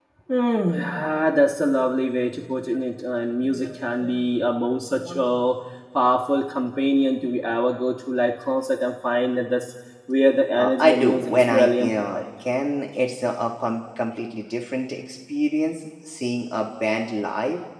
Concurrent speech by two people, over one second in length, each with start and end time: 10.6-12.2

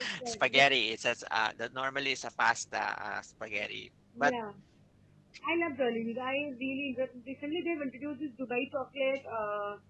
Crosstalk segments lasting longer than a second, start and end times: none

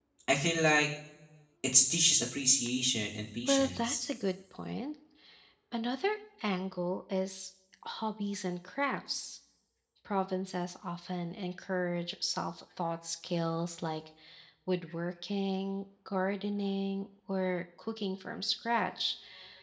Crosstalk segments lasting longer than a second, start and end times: none

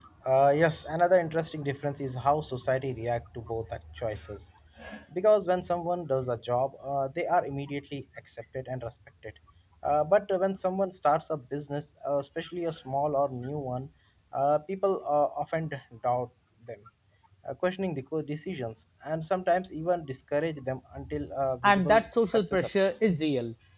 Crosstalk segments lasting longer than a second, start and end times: 21.6-23.0

